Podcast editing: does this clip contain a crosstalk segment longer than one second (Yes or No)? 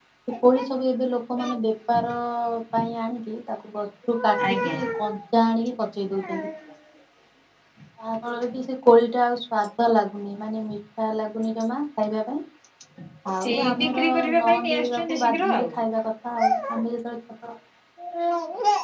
Yes